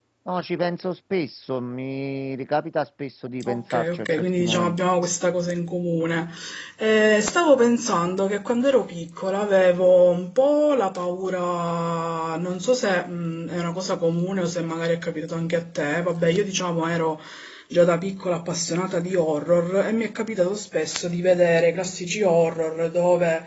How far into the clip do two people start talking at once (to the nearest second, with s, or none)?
3 s